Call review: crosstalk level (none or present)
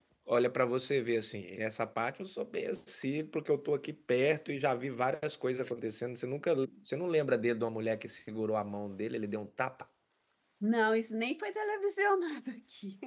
none